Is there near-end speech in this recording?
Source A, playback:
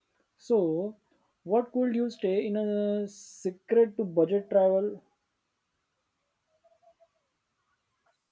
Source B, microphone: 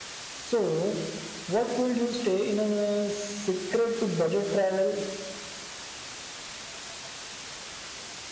No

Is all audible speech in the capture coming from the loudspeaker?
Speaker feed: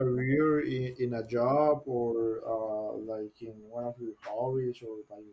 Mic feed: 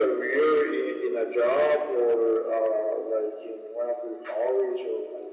Yes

